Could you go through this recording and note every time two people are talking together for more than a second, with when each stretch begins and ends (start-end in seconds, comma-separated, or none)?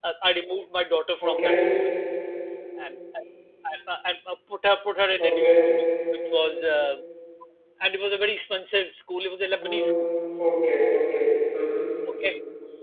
none